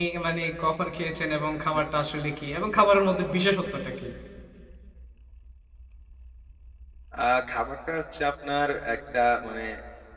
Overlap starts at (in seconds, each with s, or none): none